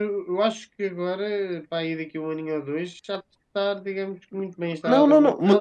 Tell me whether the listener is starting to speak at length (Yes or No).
Yes